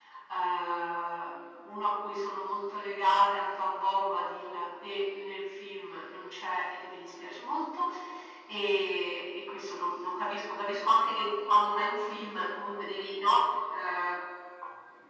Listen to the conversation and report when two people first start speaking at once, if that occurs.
none

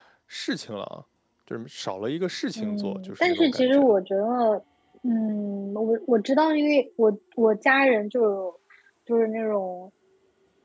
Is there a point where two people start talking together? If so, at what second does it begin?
2.6 s

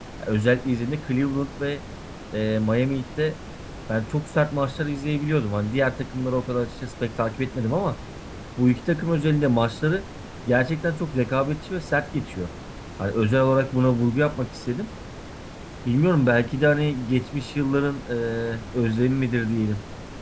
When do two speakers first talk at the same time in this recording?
none

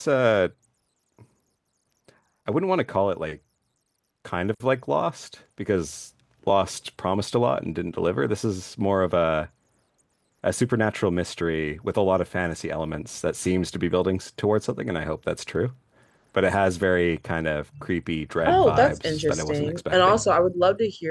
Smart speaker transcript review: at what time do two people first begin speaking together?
18.4 s

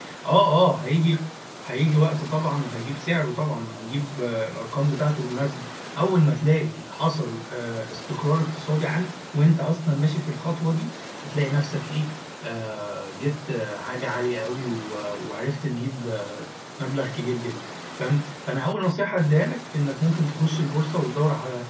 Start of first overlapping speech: none

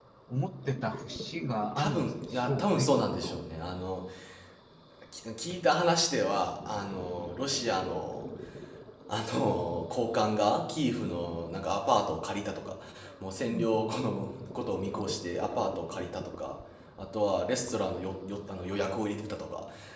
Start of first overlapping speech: 1.8 s

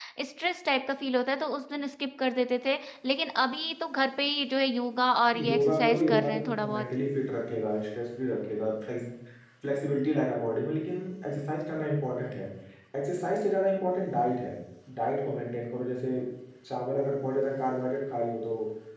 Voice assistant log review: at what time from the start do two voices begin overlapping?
5.3 s

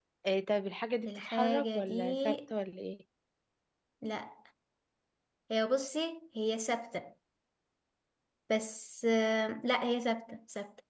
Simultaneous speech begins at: 1.0 s

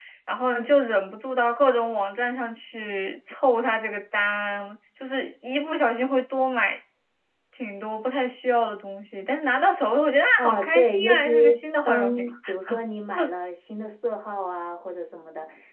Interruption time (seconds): 10.4 s

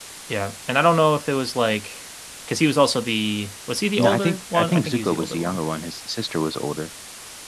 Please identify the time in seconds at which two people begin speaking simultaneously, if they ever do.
4.0 s

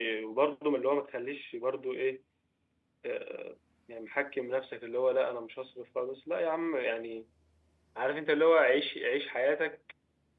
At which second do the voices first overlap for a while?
none

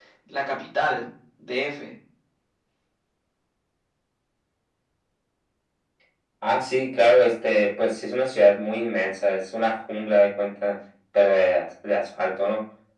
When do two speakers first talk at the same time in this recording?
none

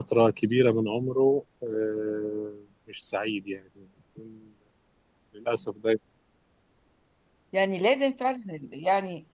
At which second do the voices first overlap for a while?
none

